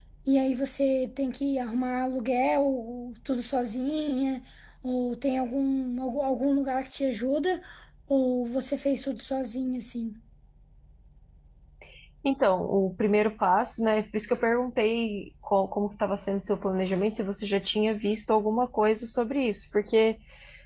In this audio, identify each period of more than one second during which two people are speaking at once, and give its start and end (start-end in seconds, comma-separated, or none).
none